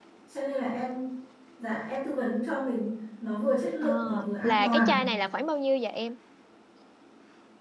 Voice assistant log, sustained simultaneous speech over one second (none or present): none